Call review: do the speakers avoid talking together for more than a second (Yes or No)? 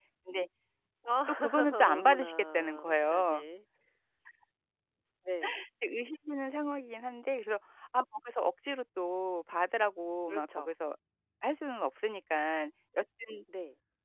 No